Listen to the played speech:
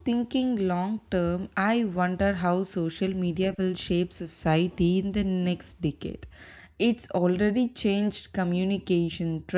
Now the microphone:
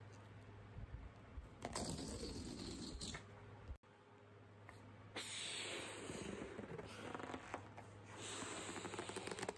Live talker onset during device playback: none

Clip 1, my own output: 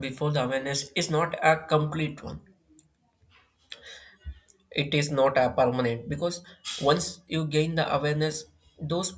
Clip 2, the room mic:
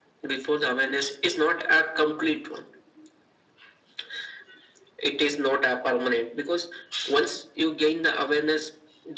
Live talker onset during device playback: none

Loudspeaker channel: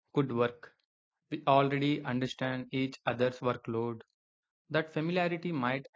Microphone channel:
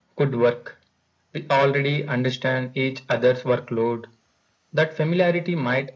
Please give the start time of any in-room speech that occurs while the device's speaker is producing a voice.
none

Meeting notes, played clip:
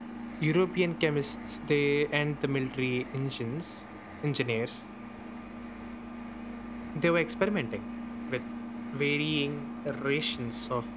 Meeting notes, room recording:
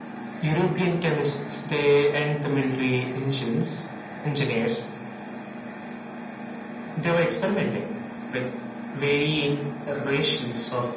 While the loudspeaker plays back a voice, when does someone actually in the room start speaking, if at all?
none

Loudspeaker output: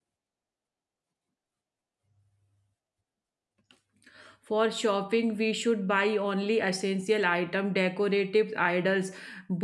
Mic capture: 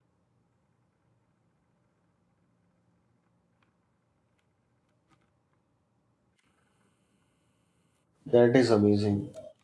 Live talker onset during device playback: 8 s

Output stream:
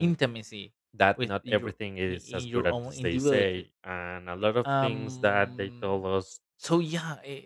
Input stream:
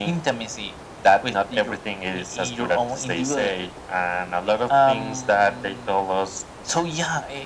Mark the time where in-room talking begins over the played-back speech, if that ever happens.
none

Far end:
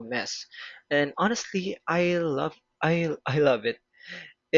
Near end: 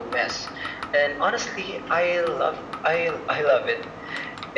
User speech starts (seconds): none

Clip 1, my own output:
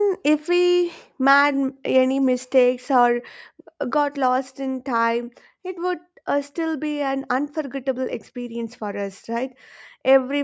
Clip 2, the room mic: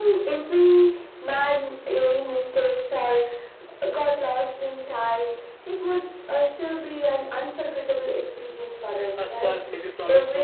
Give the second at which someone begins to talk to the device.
9 s

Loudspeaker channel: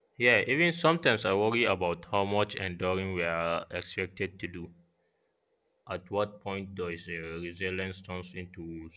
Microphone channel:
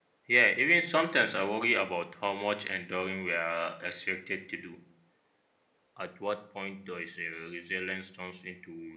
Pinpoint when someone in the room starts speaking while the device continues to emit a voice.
none

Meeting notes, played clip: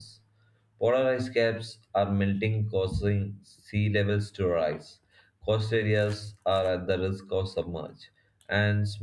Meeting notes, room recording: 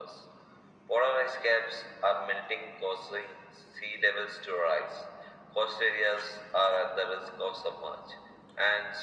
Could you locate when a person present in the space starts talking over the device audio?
none

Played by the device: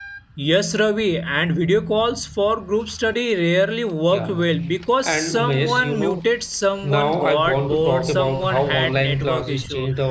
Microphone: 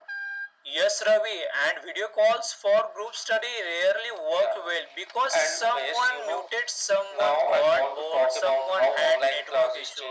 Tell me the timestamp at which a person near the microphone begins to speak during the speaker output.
none

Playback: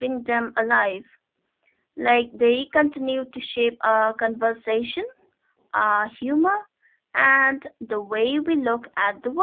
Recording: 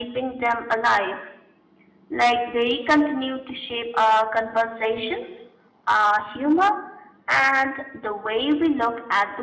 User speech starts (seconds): none

